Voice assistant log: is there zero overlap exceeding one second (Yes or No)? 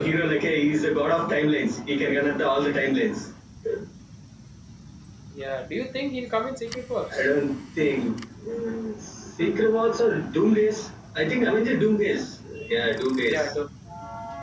Yes